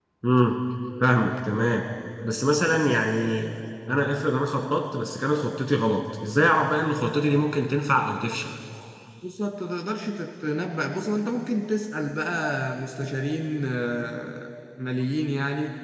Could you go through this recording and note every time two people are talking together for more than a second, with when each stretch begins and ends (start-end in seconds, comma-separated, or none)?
none